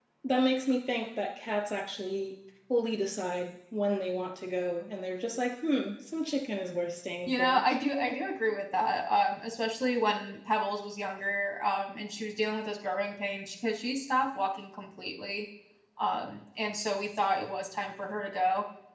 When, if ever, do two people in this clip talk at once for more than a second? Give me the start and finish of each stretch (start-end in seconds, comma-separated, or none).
none